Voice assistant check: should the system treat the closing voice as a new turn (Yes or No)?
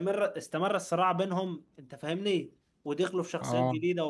No